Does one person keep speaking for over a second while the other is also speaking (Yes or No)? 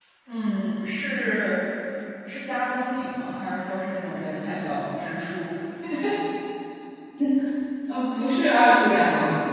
No